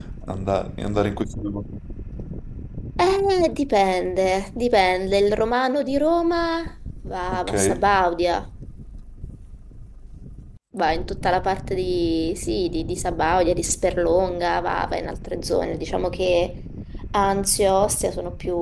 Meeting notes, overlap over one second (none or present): none